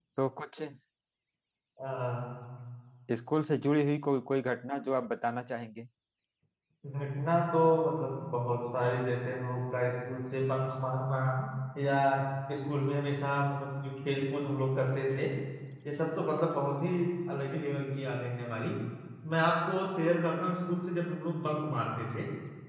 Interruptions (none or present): none